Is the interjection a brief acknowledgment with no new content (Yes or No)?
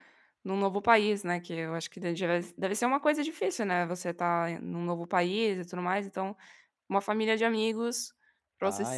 No